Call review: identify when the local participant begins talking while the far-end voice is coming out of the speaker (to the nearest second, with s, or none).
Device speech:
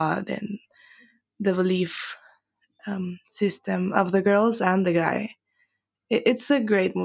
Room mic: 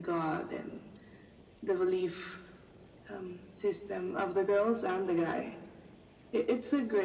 none